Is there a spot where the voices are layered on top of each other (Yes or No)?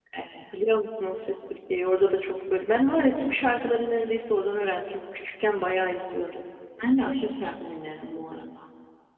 No